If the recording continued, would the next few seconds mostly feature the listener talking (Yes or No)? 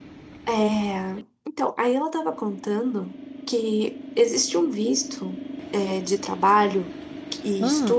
No